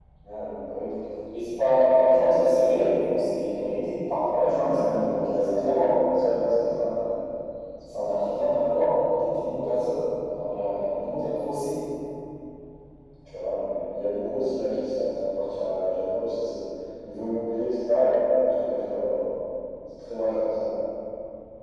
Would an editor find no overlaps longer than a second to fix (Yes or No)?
No